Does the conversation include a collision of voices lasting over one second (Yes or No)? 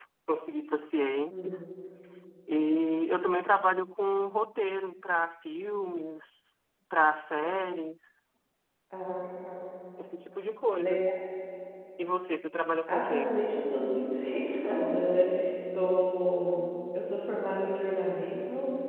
No